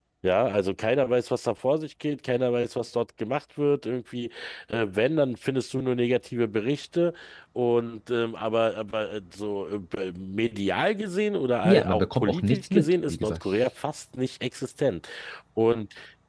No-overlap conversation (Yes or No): No